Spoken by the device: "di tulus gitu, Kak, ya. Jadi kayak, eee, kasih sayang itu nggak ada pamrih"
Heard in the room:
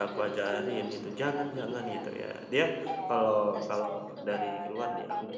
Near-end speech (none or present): present